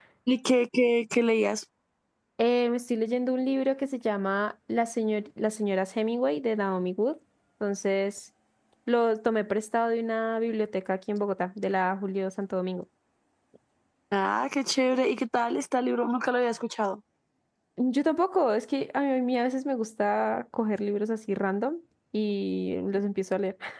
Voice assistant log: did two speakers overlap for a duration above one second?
No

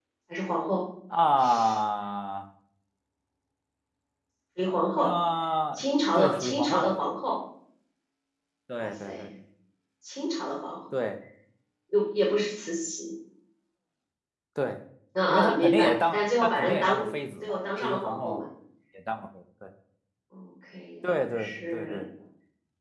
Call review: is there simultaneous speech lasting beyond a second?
Yes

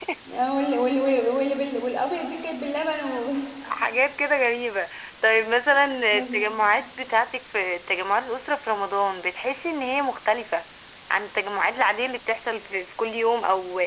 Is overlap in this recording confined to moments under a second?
Yes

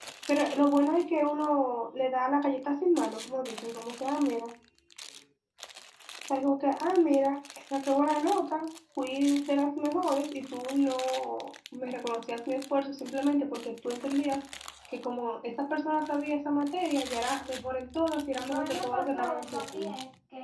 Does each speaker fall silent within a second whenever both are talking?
No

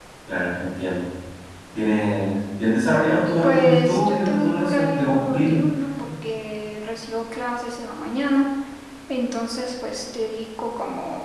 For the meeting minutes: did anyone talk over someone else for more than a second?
Yes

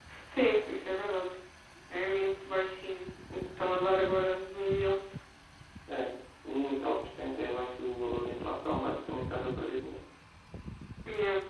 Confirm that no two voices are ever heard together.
Yes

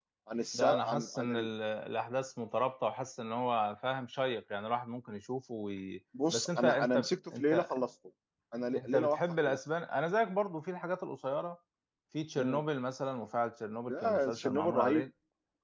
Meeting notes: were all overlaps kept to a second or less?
No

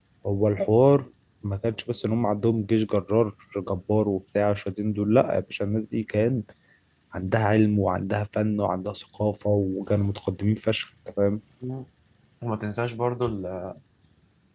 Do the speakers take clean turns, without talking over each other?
Yes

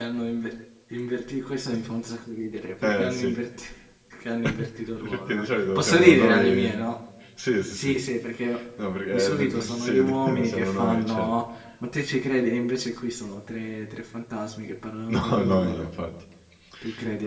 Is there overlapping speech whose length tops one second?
Yes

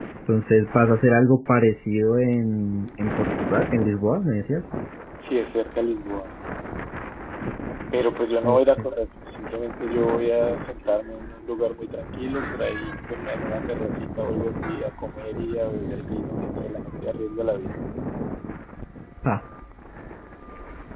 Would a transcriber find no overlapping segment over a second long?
Yes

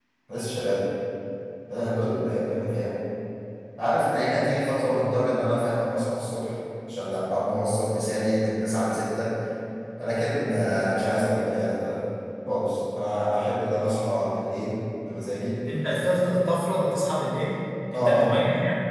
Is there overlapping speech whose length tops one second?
No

